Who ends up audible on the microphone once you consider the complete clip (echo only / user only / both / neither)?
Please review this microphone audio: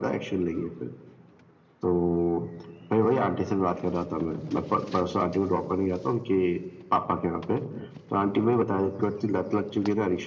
echo only